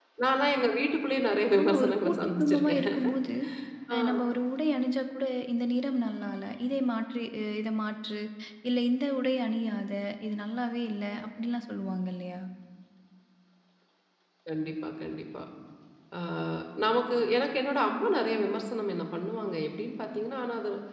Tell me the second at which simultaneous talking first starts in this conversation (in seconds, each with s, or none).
1.6 s